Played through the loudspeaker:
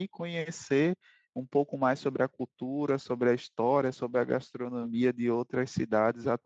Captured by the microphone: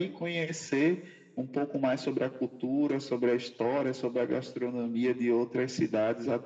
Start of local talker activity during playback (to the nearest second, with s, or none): none